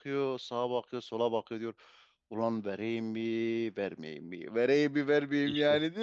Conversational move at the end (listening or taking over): listening